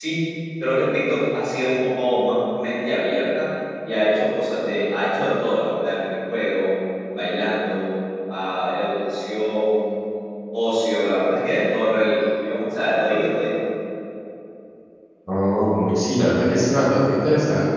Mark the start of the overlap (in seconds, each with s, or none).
none